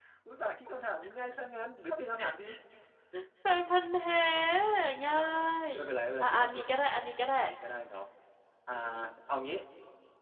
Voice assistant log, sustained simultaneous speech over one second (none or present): none